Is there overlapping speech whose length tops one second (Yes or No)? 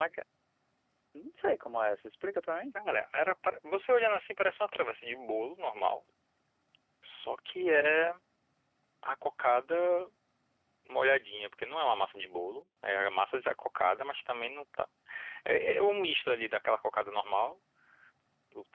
No